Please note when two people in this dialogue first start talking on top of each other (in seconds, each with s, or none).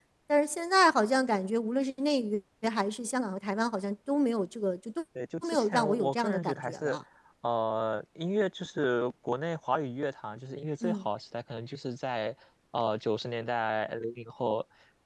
5.4 s